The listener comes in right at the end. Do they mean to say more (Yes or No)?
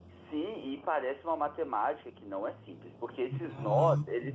No